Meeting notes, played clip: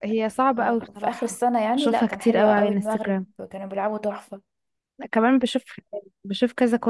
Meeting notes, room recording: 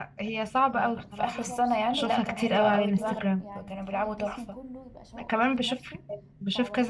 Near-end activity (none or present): present